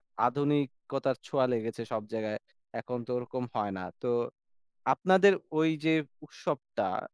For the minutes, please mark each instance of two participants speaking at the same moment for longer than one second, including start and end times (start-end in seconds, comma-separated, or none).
none